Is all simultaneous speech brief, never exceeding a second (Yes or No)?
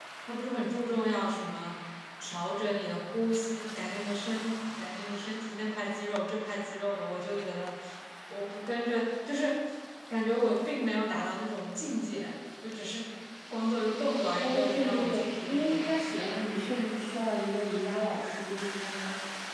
No